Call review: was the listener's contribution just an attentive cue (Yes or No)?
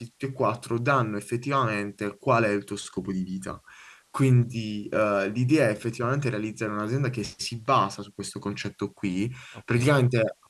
Yes